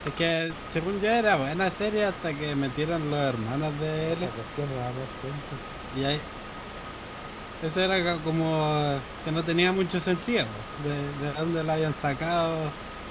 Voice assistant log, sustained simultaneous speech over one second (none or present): none